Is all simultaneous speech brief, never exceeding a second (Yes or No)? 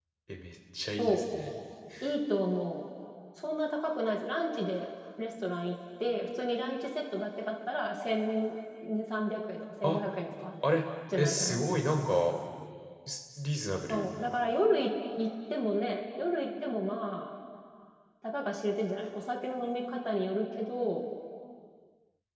Yes